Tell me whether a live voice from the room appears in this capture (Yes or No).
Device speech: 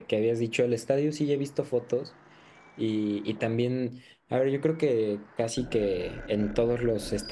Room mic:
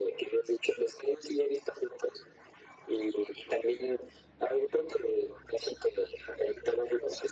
No